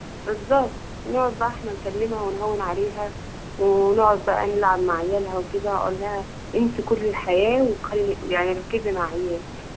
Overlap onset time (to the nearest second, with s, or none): none